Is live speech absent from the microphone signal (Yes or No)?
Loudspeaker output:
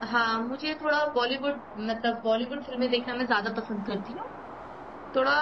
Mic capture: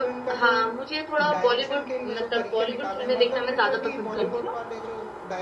No